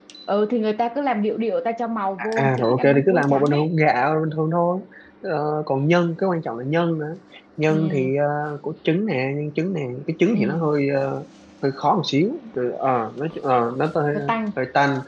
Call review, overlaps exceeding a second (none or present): present